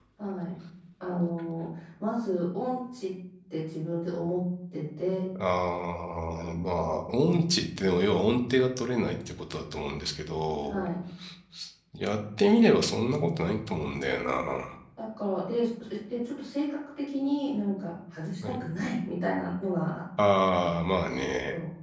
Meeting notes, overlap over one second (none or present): none